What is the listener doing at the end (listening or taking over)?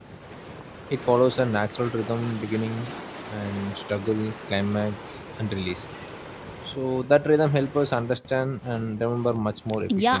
taking over